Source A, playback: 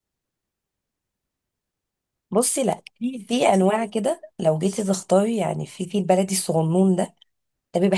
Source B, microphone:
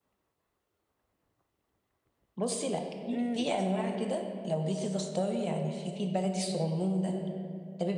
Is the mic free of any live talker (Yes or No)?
No